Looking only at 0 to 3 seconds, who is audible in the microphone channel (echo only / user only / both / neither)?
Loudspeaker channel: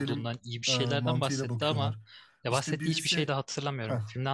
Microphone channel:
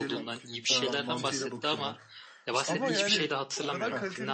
both